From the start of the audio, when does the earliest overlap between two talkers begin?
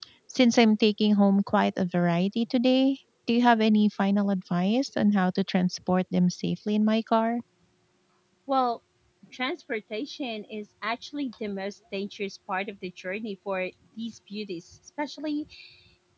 none

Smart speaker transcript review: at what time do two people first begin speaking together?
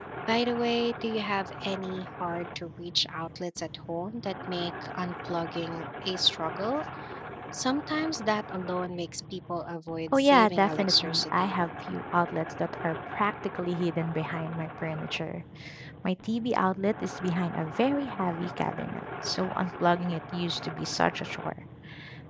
10.1 s

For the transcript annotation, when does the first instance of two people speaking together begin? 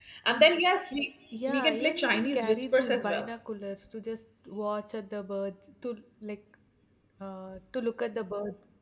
1.3 s

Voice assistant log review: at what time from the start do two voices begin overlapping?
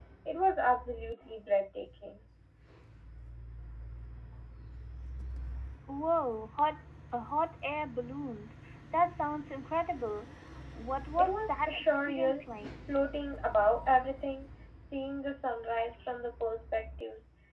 11.2 s

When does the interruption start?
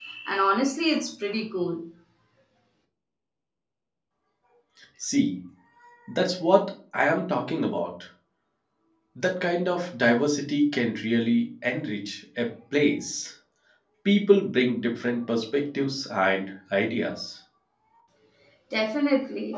none

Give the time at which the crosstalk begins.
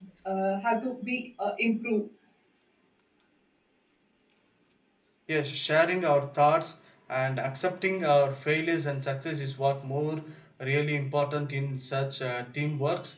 none

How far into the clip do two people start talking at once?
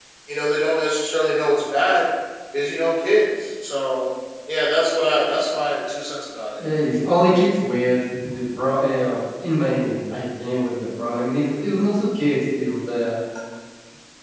none

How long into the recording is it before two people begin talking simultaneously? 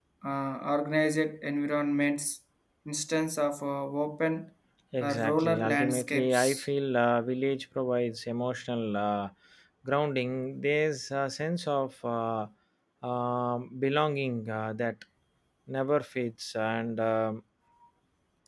5.0 s

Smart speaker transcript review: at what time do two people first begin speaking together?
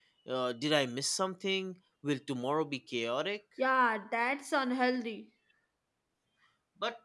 none

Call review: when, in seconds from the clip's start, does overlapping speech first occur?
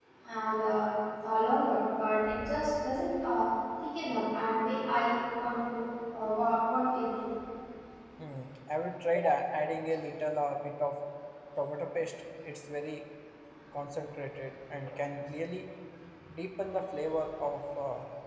none

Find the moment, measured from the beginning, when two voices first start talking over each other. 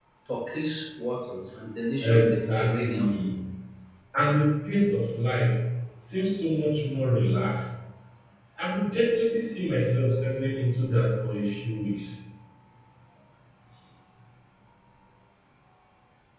2.0 s

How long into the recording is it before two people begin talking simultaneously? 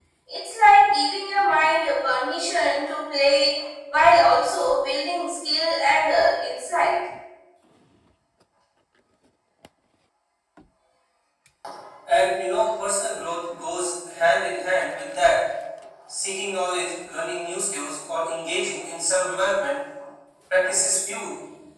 none

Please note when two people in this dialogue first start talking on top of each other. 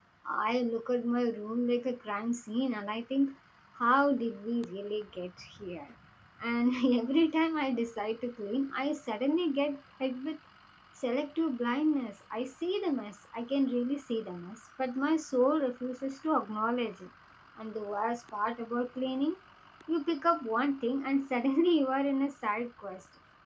none

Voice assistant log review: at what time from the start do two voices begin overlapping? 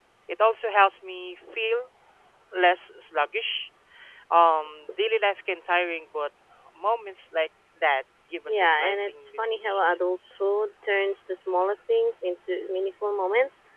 8.5 s

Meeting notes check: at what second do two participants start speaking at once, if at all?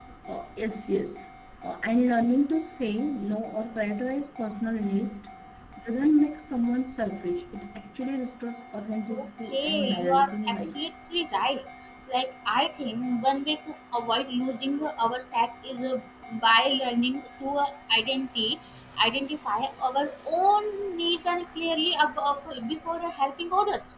9.1 s

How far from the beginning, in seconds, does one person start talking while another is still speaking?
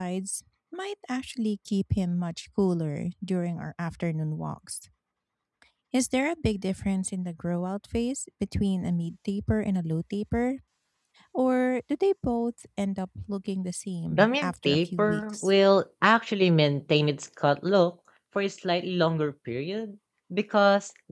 14.1 s

